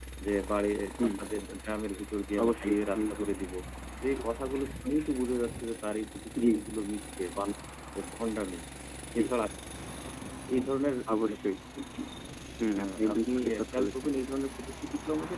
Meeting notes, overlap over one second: present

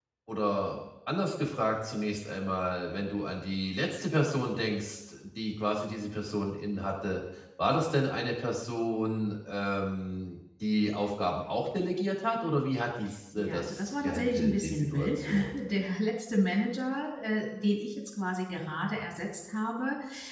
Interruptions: present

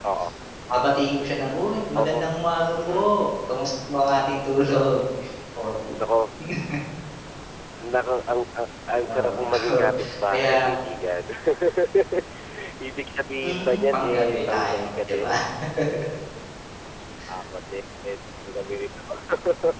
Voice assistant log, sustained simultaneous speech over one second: present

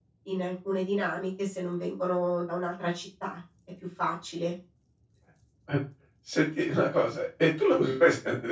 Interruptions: none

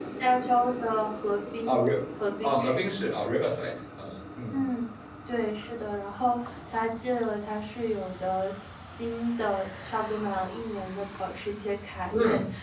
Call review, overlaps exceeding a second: none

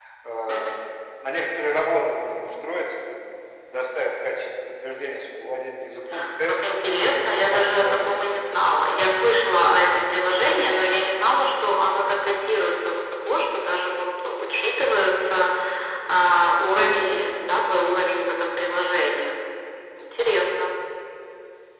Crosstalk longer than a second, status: present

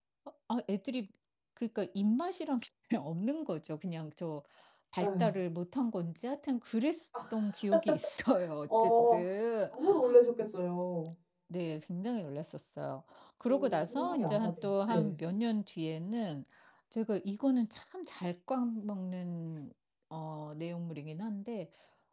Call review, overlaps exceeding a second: present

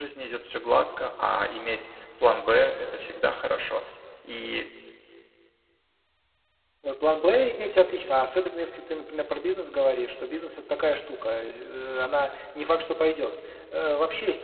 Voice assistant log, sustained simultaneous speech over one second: none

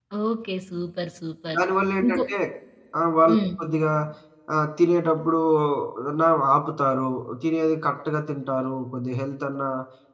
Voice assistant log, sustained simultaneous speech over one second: none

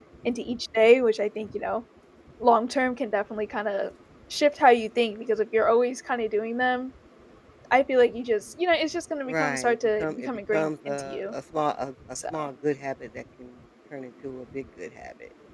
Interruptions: present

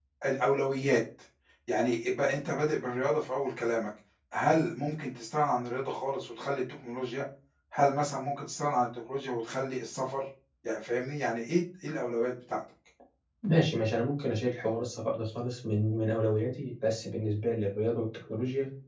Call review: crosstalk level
none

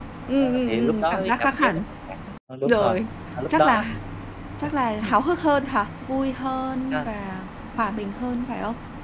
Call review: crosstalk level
present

